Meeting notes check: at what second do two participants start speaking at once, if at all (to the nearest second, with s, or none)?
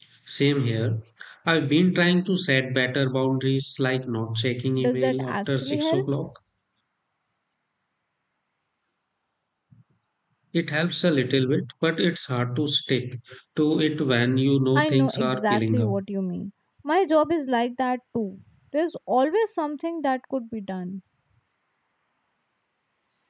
5 s